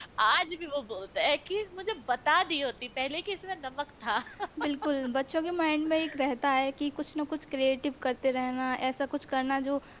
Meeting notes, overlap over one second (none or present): none